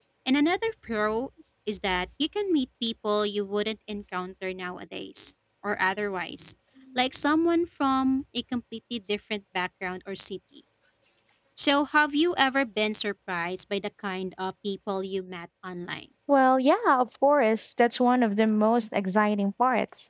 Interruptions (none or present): none